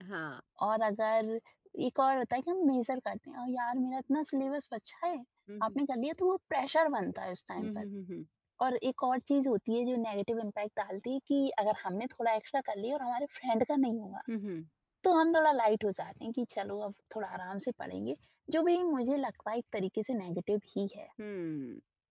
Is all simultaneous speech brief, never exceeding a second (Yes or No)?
Yes